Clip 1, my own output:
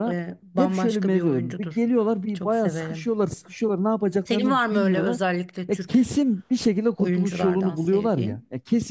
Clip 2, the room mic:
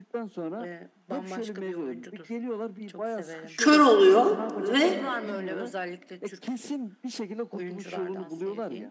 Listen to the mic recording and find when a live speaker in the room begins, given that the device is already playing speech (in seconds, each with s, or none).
3.5 s